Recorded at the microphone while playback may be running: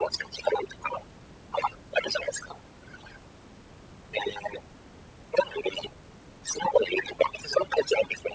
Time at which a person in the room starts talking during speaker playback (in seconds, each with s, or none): none